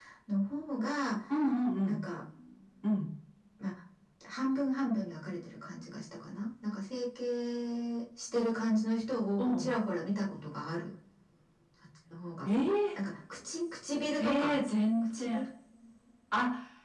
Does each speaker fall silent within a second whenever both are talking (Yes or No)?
Yes